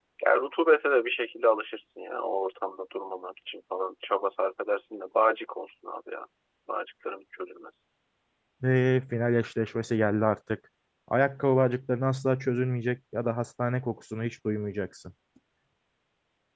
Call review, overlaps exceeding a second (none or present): none